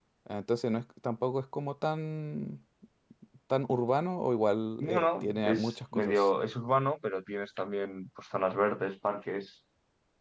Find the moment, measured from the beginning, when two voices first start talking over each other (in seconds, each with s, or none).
4.8 s